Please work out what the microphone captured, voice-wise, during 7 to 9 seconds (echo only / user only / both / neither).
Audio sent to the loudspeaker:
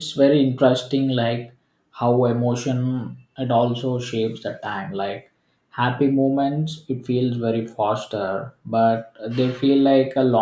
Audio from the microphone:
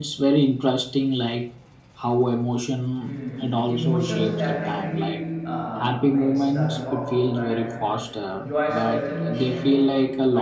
both